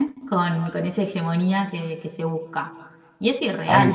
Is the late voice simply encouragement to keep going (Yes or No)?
No